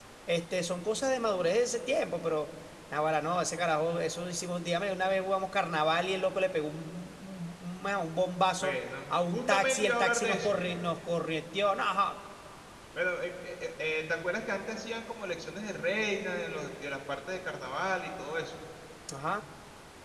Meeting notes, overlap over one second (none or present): present